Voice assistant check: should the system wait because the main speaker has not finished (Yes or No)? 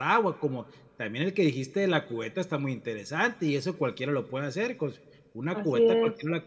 Yes